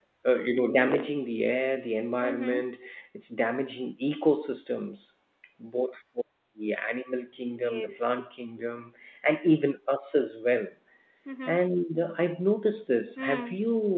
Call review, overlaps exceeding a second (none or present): none